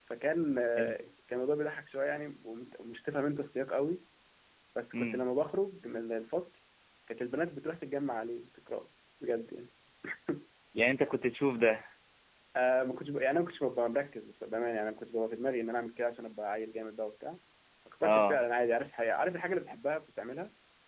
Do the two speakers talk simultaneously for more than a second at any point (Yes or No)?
No